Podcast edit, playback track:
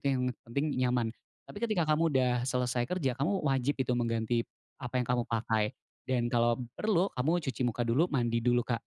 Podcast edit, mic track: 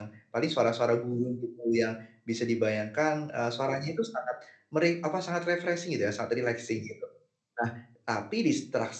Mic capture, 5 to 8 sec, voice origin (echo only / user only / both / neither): user only